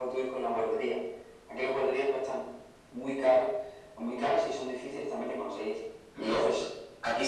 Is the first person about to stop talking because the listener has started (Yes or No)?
Yes